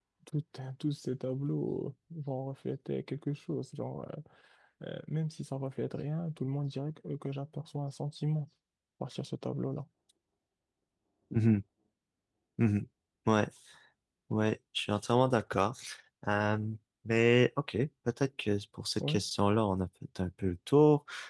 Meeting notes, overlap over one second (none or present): none